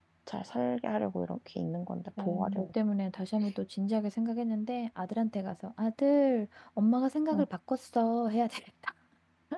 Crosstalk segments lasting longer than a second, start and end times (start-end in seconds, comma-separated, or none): none